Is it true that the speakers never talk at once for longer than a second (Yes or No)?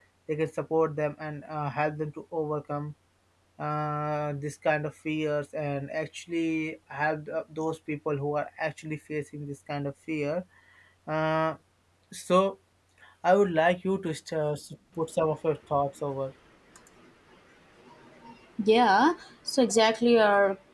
Yes